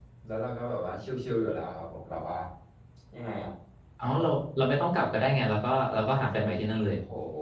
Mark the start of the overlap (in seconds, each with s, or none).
none